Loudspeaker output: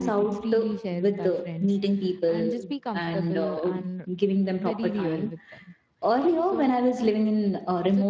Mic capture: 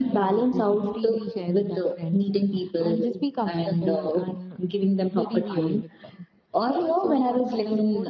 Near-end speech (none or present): present